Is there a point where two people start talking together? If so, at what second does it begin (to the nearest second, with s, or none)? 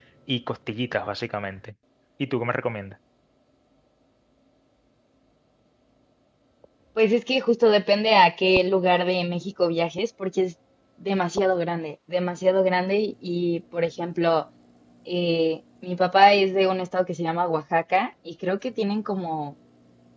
none